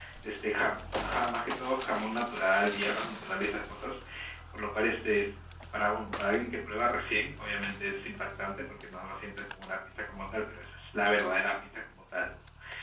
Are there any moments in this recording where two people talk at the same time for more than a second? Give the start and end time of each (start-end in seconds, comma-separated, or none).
none